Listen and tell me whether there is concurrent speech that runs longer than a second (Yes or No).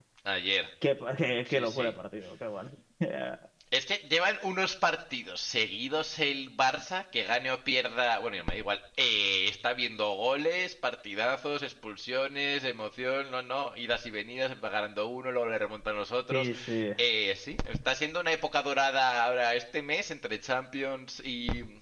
No